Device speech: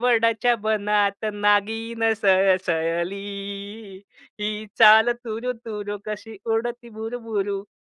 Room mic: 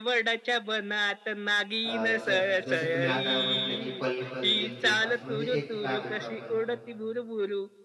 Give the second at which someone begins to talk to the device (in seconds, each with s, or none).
1.8 s